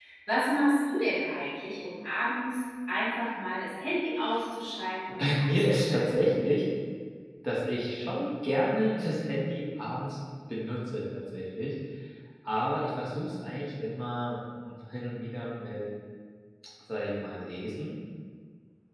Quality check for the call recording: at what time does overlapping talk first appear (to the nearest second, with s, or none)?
5 s